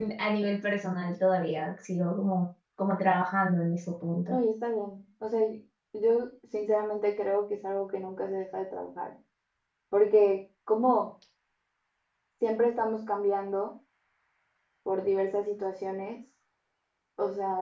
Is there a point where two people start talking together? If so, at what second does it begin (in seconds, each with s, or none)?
none